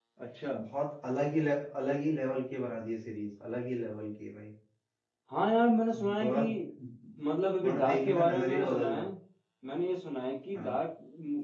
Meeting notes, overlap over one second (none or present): present